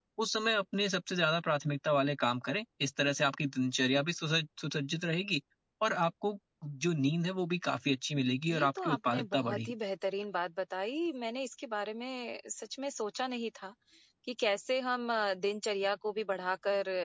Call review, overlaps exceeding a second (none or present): present